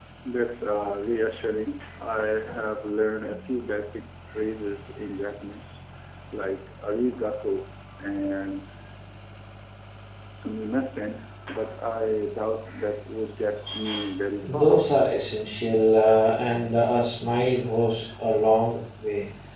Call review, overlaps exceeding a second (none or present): none